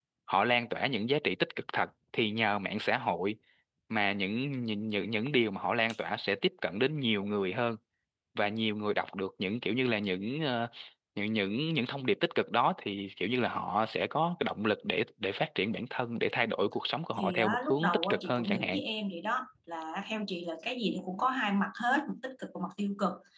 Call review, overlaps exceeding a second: present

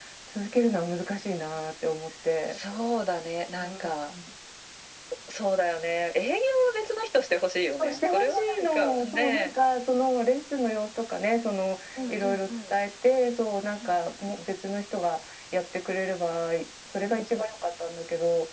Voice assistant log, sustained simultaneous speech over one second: present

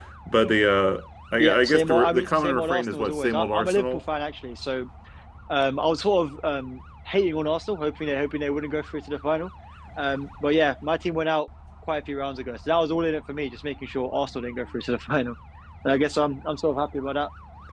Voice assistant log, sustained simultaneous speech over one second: present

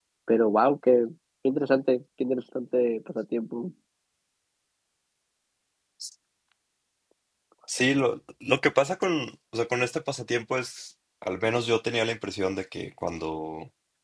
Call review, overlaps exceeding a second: none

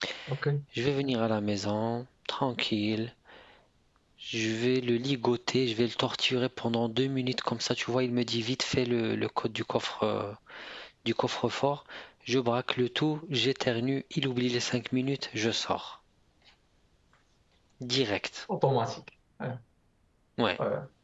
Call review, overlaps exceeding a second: none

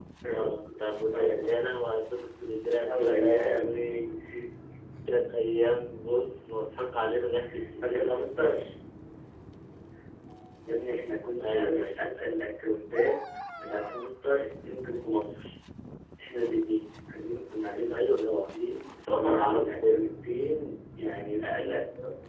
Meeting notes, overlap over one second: present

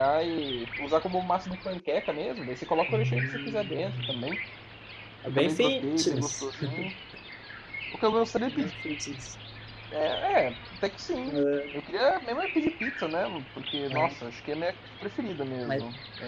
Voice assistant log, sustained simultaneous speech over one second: present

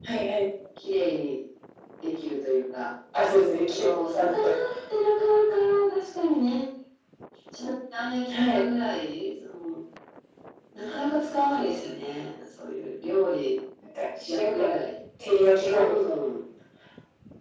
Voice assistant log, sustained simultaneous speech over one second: none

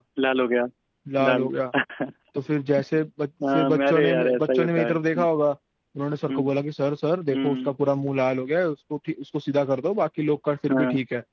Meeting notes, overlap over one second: present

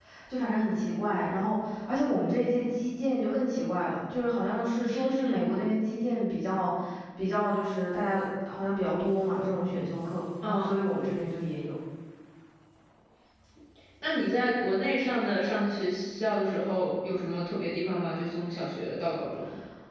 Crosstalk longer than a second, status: none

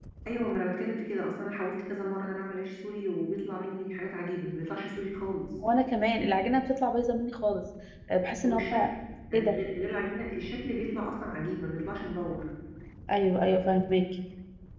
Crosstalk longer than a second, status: none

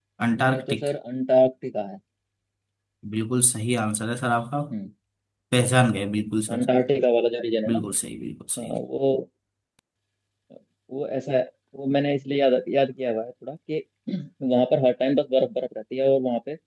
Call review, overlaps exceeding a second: none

